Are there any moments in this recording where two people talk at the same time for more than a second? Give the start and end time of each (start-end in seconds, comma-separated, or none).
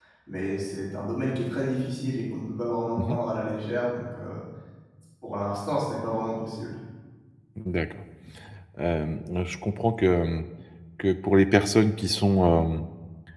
none